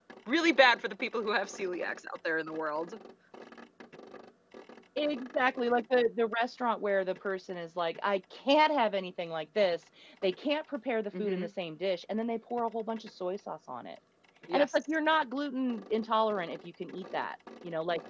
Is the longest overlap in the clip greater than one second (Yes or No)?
No